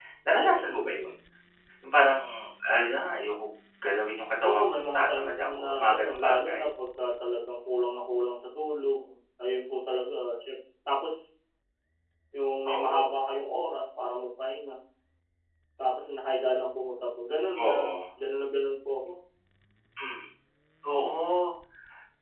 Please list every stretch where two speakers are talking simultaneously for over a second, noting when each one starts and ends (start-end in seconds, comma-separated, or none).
4.5-6.6